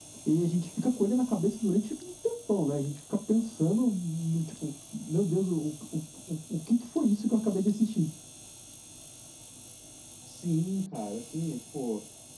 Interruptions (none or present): none